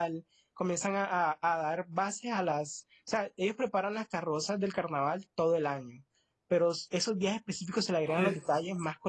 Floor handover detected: No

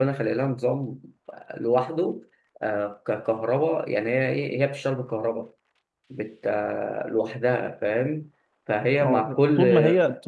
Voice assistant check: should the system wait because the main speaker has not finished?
No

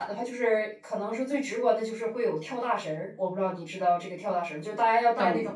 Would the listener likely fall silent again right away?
Yes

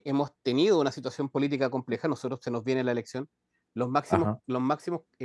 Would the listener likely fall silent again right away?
Yes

